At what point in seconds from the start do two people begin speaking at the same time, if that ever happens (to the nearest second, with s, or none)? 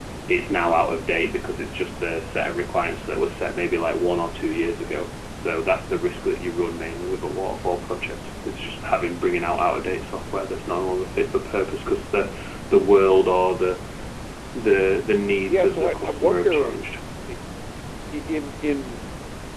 15 s